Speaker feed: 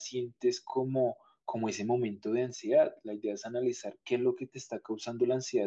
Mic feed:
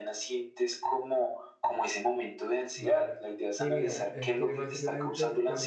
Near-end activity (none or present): present